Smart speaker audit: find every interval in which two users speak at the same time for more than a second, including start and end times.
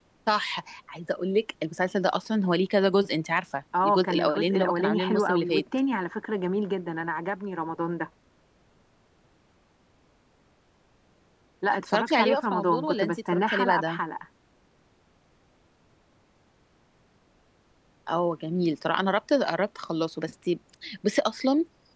3.8-5.6, 11.9-14.0

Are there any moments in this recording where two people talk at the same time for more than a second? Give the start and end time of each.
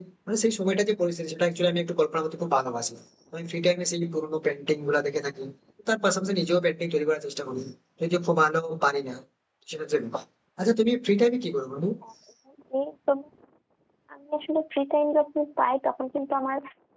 none

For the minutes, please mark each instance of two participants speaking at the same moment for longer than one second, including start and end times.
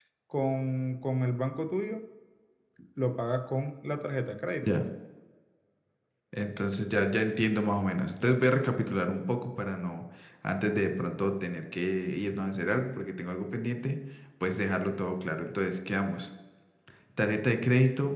none

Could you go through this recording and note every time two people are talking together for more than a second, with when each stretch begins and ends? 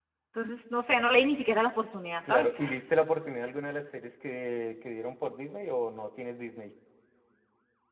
none

